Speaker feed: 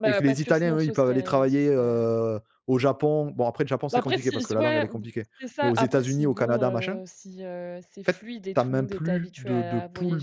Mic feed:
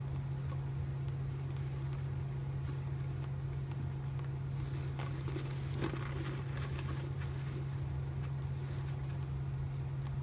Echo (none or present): none